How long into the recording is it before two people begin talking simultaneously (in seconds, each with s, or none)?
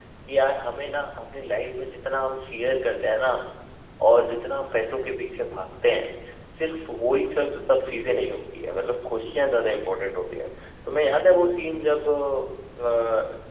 none